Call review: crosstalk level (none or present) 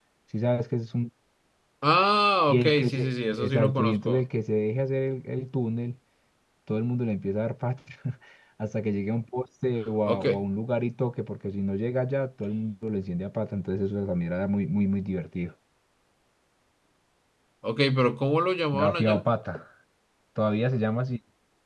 present